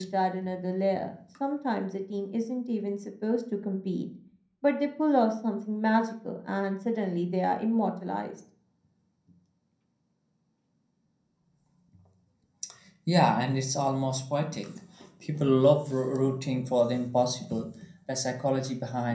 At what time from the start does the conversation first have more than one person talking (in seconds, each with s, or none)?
none